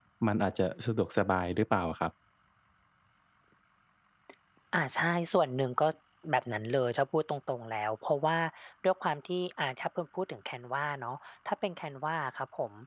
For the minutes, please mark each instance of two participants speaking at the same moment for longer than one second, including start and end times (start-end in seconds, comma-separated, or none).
none